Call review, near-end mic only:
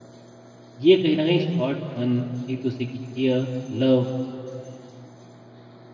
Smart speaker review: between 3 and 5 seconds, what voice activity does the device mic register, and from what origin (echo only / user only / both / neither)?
user only